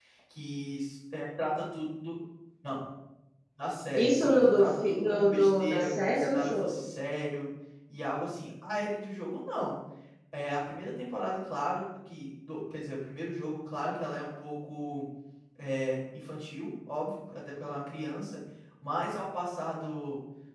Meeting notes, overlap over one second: present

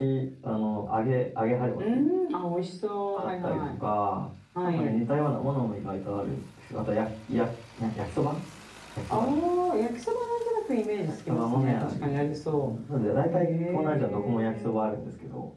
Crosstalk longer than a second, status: present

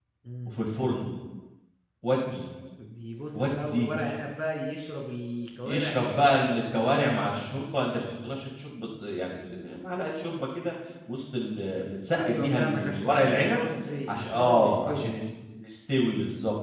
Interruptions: present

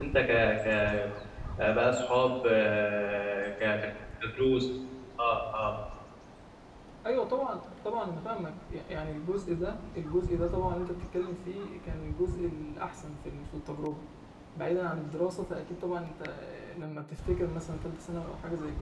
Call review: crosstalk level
none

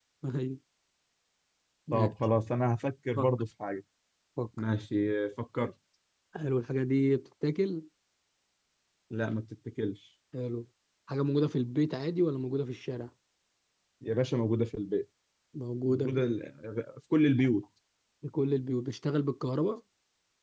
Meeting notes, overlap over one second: none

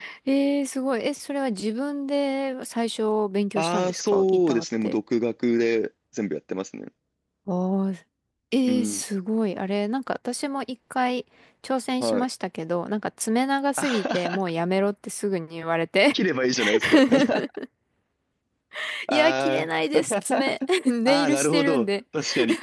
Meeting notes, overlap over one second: present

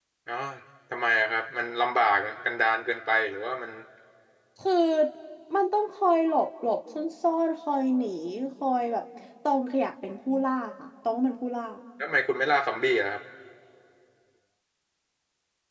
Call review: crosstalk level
none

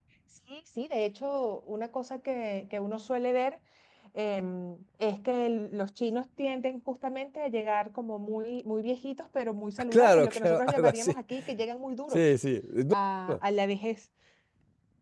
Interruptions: present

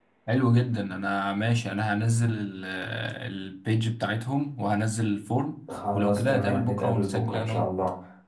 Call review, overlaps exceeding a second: present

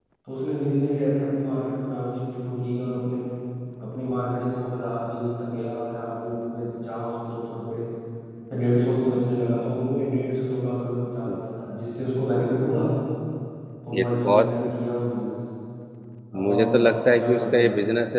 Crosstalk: present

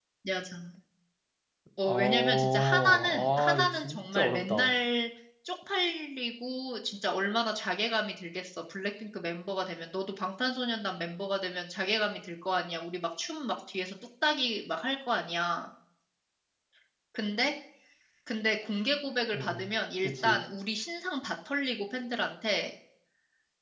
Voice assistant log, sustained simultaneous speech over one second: present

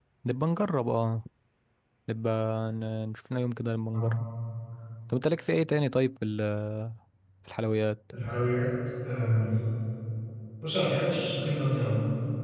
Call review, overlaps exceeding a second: none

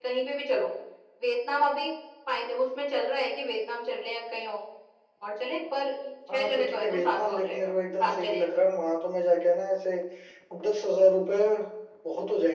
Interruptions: present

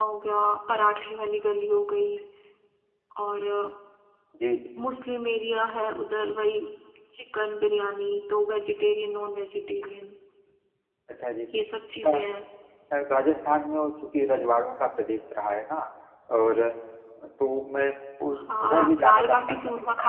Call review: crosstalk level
present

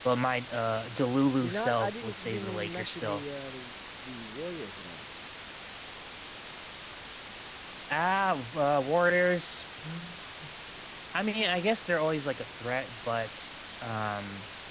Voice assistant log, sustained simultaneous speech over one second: present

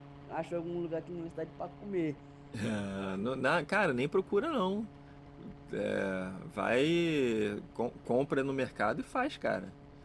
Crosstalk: none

